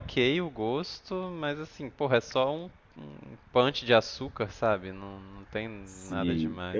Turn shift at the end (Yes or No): Yes